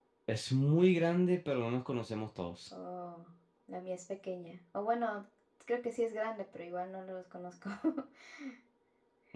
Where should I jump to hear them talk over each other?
none

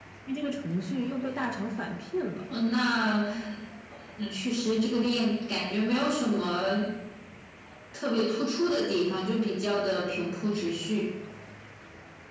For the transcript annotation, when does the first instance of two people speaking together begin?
none

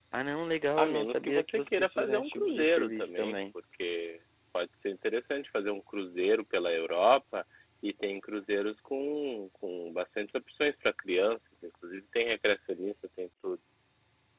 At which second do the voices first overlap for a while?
0.8 s

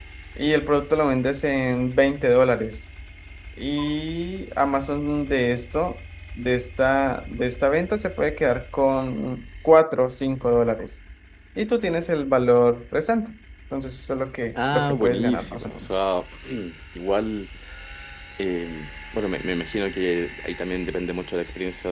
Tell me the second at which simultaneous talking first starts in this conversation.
14.5 s

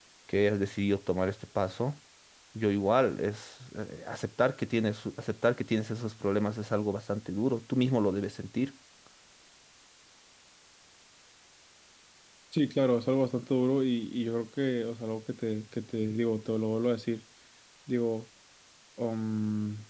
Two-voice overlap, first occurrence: none

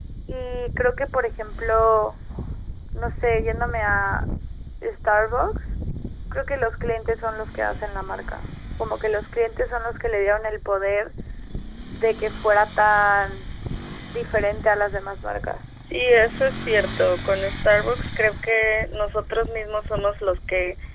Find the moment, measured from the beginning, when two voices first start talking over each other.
none

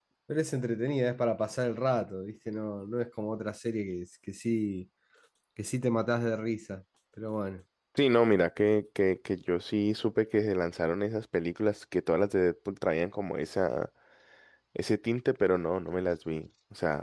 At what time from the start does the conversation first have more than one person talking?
none

